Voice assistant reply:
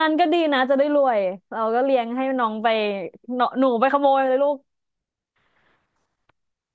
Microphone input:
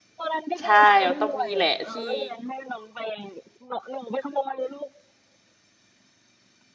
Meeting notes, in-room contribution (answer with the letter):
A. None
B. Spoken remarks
B